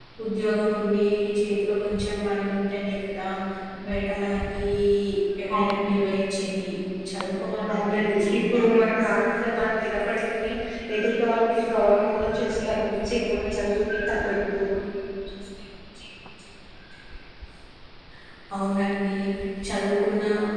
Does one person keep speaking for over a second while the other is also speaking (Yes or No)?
Yes